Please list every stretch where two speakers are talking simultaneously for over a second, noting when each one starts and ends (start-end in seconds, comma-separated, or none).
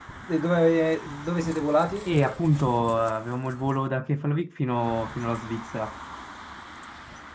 none